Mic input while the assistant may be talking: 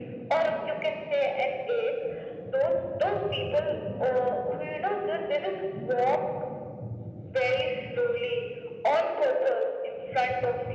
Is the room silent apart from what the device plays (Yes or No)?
Yes